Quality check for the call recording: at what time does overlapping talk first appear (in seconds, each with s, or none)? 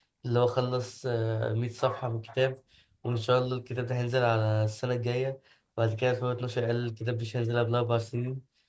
none